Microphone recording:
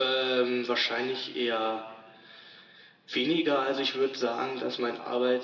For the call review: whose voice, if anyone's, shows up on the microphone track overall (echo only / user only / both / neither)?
echo only